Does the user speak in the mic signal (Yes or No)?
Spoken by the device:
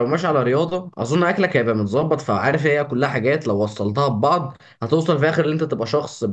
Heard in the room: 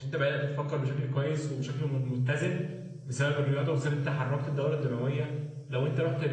Yes